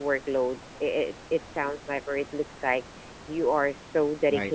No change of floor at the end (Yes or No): Yes